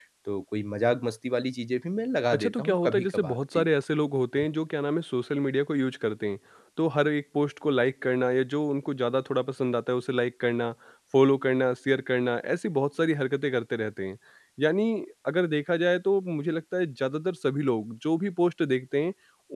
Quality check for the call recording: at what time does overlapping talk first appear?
2.3 s

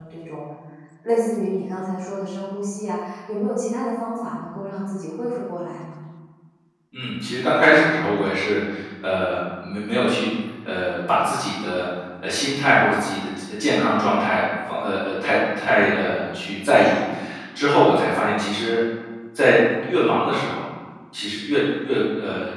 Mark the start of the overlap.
none

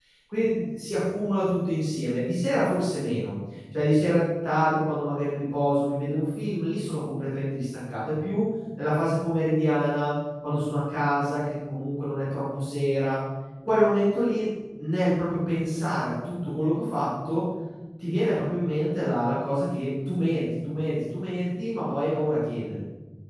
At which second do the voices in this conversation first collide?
none

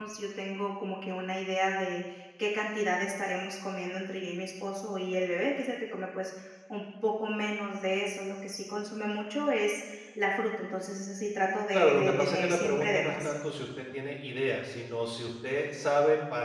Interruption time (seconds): 11.7 s

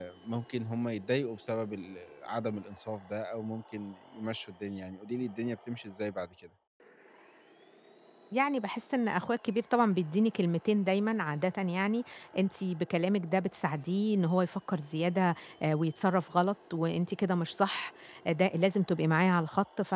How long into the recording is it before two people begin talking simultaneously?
none

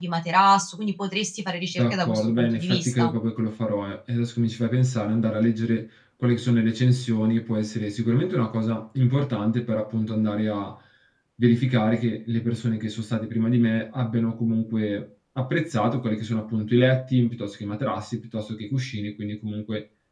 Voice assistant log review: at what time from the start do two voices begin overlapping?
1.8 s

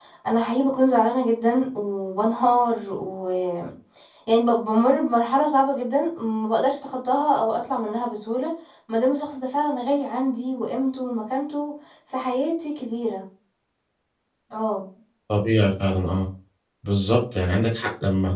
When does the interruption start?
none

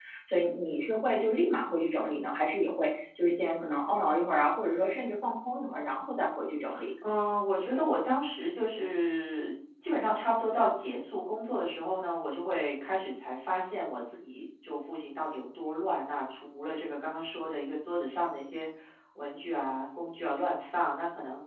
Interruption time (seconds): none

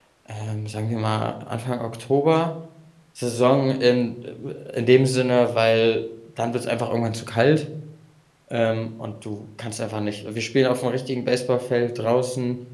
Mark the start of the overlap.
none

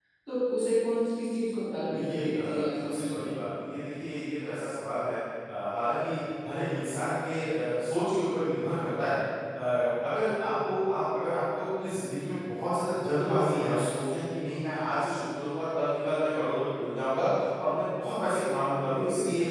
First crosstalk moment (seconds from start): 1.9 s

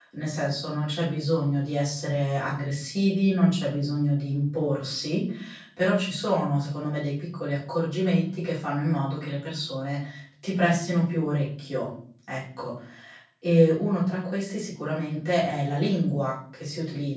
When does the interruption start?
none

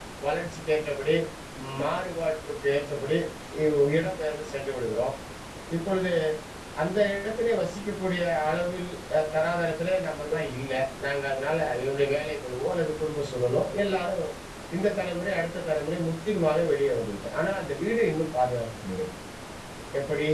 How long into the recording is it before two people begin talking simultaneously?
none

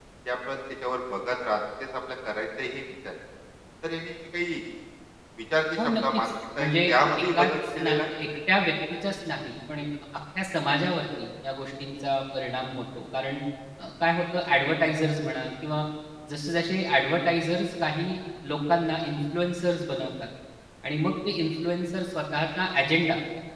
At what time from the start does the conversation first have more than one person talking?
5.8 s

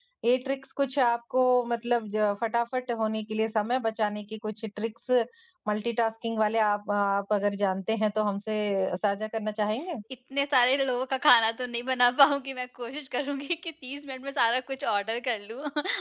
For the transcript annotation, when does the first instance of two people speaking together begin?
none

